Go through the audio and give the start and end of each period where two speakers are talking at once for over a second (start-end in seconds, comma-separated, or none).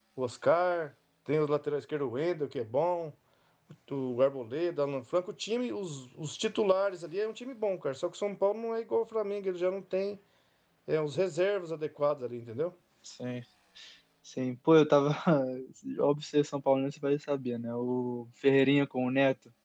none